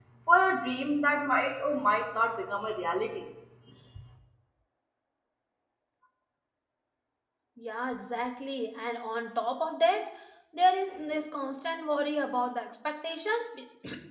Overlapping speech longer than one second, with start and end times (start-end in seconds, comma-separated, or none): none